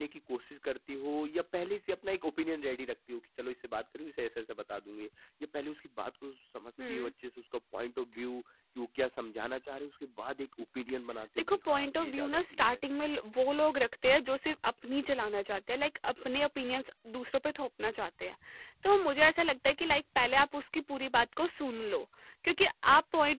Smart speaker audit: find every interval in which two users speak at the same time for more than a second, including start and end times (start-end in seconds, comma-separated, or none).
11.4-12.8